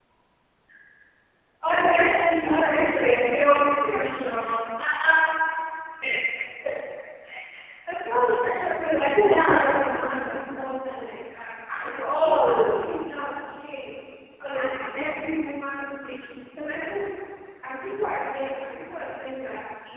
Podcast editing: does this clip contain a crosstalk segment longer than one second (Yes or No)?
Yes